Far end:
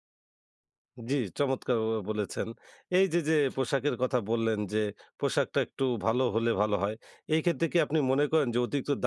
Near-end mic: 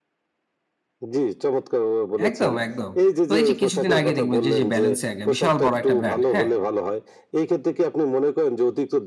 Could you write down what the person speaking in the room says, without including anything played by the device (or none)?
একদম, একদম। তো এই যে কিছুদিন আগে দেখবেন যে এইযে 'Balenciaga' বিশাল বড় একটা ব্র্যান্ড। হ্যাঁ?